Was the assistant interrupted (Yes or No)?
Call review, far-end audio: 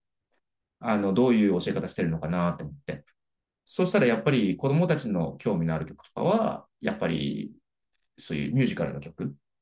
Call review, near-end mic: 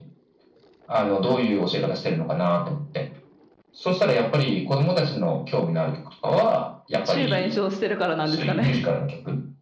Yes